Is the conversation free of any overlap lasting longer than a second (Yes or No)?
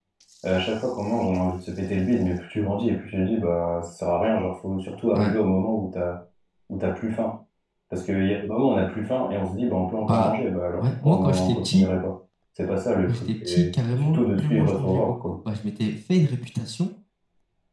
No